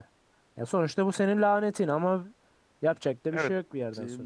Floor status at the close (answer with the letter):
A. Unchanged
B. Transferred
B